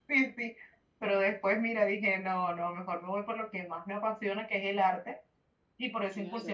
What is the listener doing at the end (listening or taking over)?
listening